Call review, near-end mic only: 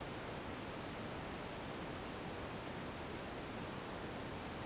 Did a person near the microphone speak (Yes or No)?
No